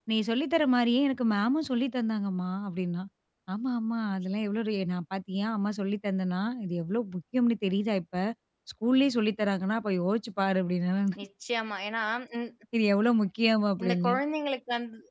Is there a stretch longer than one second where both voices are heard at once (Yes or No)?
No